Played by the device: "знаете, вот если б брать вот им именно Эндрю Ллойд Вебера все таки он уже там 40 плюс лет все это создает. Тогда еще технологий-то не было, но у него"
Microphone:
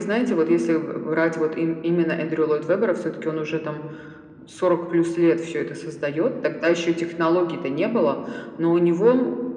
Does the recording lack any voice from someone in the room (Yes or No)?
Yes